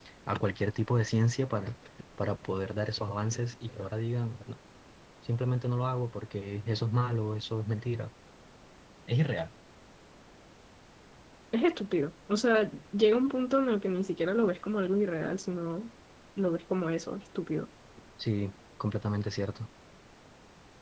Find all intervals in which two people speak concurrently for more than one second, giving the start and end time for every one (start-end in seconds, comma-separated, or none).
none